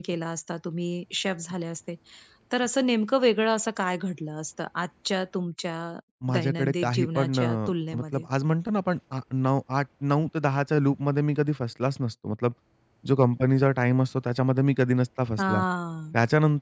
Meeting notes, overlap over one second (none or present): present